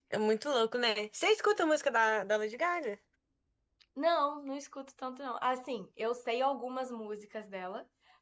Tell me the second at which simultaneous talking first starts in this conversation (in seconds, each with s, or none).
none